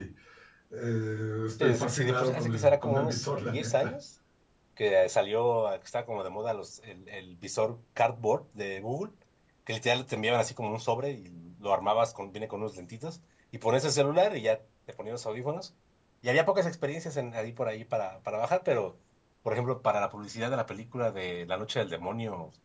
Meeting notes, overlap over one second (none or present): present